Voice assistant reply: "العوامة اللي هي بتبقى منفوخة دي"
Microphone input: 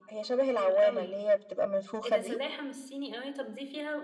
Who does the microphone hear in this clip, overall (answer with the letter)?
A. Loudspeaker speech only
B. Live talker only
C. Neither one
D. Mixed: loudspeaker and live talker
D